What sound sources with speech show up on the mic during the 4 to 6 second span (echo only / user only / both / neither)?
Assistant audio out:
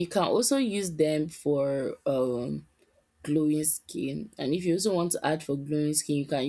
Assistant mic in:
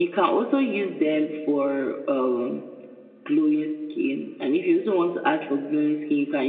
echo only